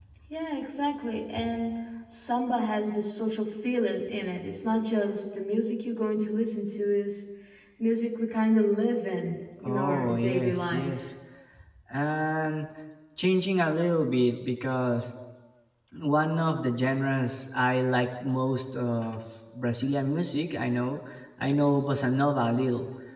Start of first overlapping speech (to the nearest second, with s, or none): 10 s